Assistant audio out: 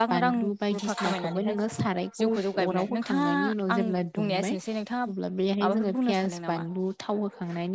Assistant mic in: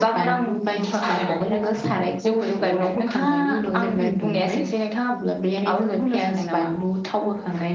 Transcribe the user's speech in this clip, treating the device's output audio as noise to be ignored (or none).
उम